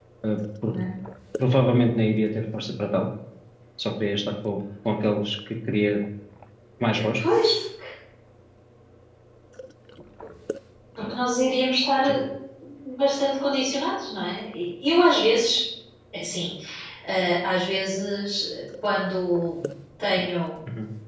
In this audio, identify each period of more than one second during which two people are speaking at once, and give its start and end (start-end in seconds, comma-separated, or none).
none